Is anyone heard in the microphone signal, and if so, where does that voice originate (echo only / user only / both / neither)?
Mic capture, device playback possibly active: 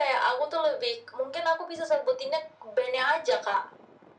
echo only